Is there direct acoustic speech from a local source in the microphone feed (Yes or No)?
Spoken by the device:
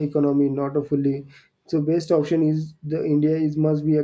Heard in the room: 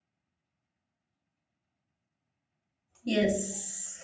Yes